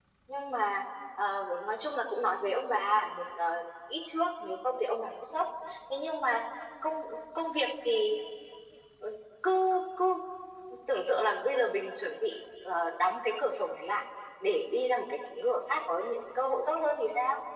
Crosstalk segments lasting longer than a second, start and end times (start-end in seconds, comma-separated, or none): none